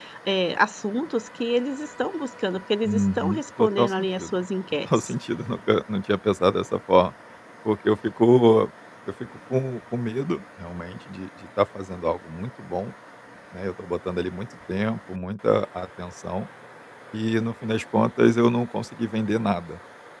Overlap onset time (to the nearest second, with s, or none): 3 s